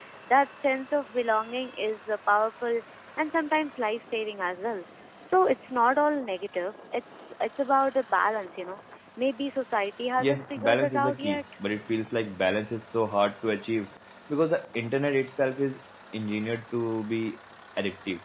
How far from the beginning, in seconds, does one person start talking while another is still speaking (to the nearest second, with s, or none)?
10 s